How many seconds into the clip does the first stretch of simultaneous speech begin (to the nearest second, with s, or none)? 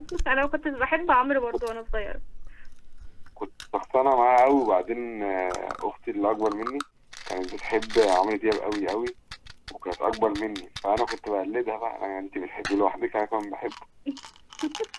none